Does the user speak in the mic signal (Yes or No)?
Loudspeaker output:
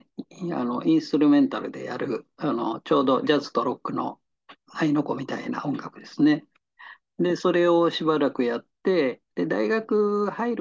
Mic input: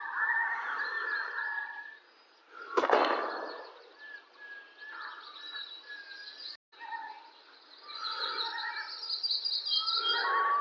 No